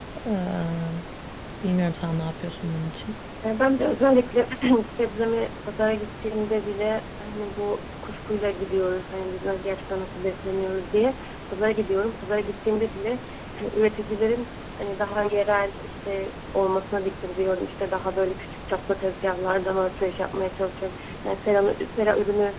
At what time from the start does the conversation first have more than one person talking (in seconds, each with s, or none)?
none